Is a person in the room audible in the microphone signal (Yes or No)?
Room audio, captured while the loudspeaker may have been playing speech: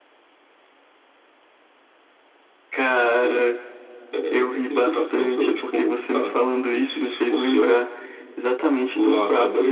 No